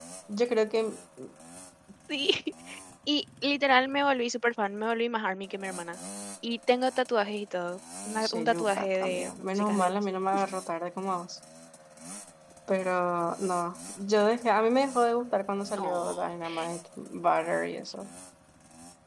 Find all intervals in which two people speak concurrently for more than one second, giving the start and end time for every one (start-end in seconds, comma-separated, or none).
8.2-10.0